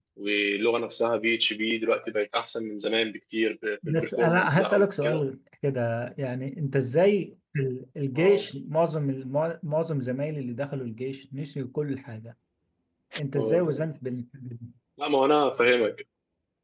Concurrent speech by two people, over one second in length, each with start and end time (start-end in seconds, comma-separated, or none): 3.9-5.2